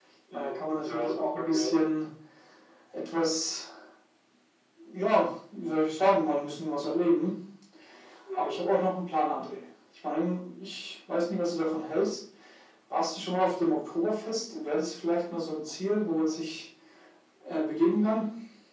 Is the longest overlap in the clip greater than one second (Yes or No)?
Yes